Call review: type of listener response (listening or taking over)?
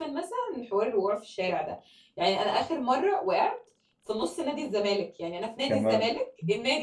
listening